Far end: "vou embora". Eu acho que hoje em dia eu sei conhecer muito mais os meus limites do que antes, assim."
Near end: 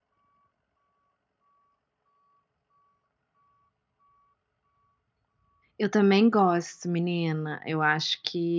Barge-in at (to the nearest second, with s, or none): 6 s